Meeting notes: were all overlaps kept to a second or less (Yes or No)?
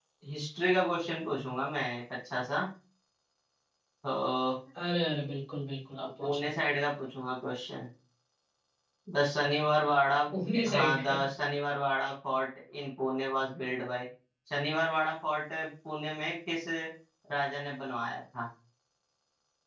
Yes